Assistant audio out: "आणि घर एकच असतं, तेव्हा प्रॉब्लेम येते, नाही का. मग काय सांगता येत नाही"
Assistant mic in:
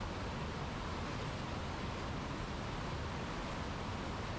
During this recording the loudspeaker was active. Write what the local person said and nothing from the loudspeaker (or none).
none